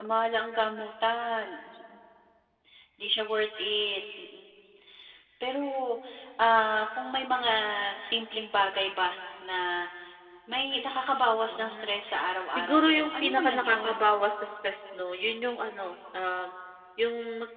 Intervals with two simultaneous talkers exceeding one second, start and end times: 12.5-13.9

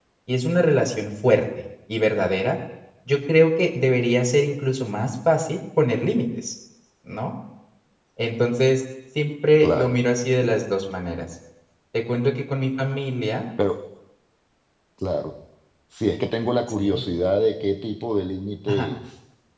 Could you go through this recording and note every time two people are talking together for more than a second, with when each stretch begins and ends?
none

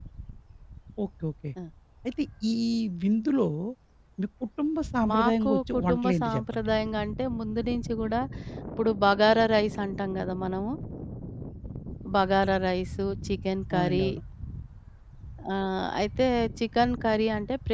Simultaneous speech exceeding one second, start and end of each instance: 5.1-6.7

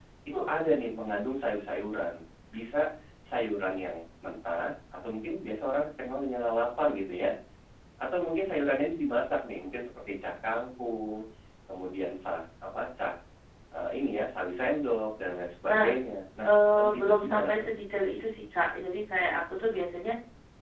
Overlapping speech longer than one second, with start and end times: 16.5-17.7

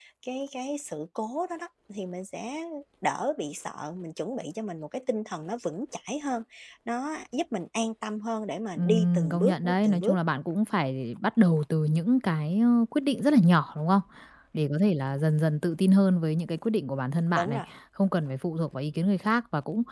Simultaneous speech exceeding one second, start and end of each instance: 8.8-10.2

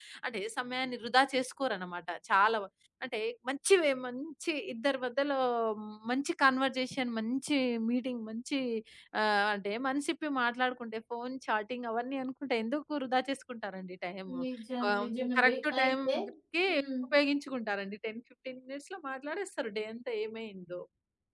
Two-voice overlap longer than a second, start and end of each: 14.9-16.2

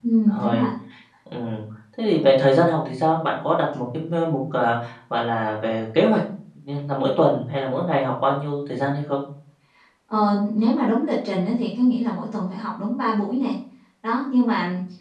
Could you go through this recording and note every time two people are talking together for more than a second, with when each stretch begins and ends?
none

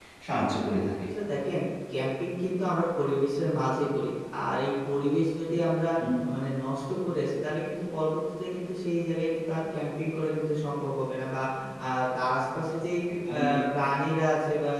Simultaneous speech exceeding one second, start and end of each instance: none

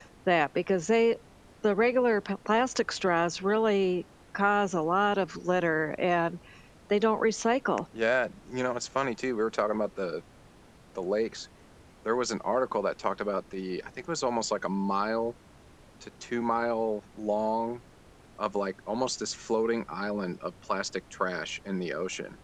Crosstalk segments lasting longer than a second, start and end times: none

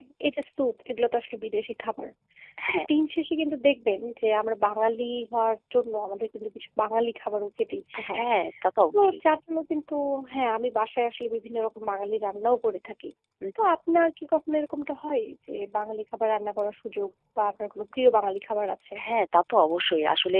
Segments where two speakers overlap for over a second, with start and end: none

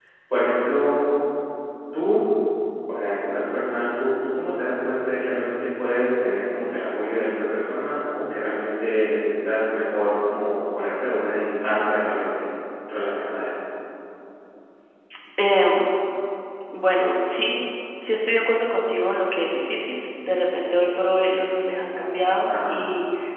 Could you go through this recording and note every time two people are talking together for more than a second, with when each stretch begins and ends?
none

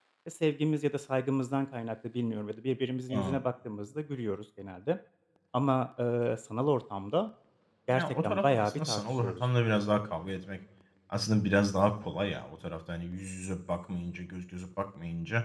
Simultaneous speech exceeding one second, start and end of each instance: 7.9-9.4

